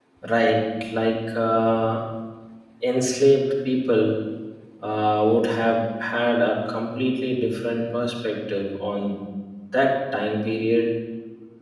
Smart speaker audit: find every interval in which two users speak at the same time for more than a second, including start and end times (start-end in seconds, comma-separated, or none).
none